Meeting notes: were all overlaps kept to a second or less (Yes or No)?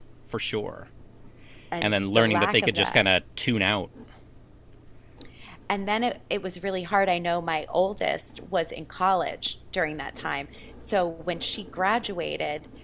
No